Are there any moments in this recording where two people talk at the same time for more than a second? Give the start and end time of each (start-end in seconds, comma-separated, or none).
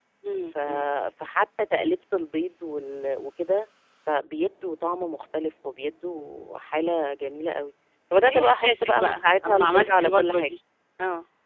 8.2-10.5